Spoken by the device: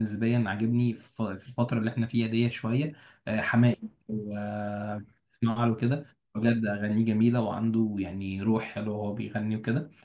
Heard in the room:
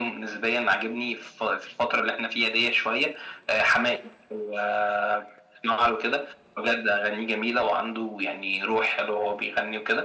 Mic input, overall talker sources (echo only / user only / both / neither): echo only